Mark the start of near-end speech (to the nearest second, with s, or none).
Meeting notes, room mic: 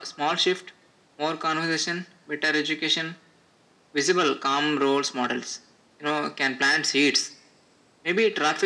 none